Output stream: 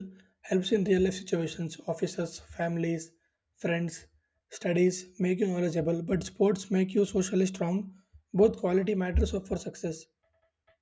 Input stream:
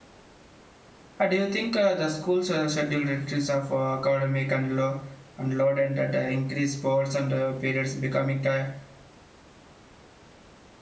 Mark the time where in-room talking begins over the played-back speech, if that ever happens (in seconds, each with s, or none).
1.2 s